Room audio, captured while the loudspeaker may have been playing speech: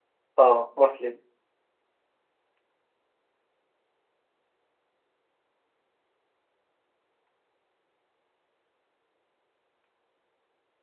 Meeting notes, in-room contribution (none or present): present